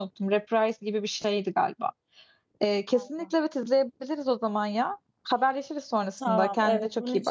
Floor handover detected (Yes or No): Yes